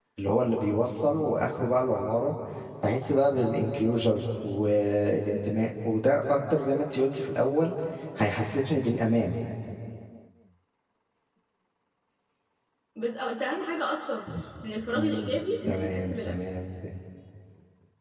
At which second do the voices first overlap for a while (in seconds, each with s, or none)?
14.9 s